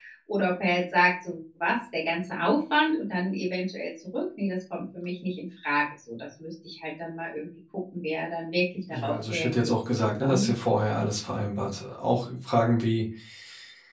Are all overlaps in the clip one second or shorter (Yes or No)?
No